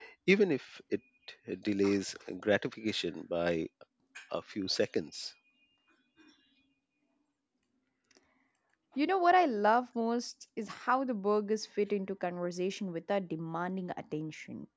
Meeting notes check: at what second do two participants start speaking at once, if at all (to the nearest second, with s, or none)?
none